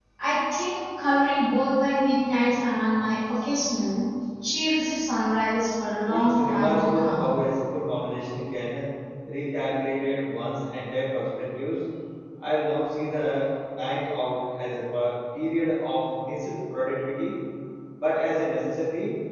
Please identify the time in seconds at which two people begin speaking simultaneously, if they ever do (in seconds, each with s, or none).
6.1 s